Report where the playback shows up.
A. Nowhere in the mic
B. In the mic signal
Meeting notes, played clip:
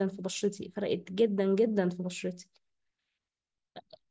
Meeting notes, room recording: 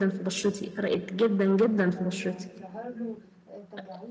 B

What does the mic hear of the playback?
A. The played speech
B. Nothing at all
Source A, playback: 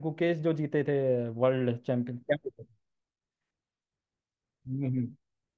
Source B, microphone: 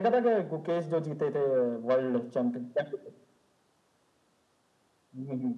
A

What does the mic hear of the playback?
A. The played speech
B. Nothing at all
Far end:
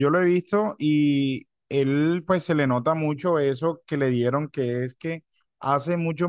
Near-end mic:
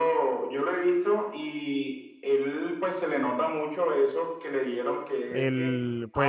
A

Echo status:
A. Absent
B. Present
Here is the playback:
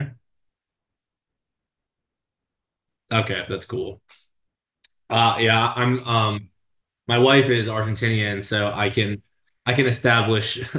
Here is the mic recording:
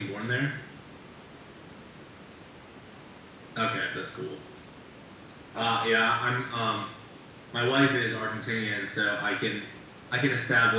B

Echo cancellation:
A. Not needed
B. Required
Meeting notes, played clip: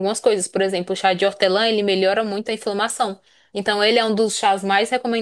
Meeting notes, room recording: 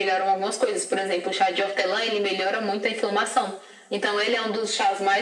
B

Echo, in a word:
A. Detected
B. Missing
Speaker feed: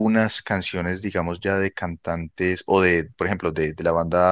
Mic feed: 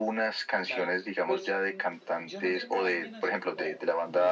A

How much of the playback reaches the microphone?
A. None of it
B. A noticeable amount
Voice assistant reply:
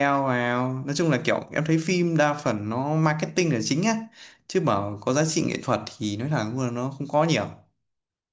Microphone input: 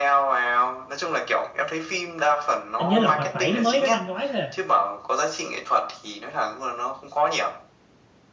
B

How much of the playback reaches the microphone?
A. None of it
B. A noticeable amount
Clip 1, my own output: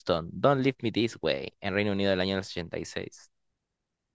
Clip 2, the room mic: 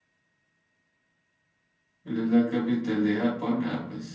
A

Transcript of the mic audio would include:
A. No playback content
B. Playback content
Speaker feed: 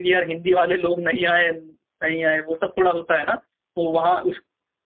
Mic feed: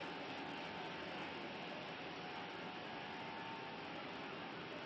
A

